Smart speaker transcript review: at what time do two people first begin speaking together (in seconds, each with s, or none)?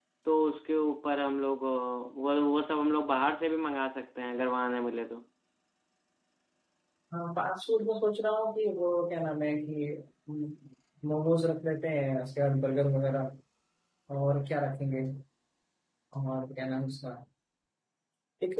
none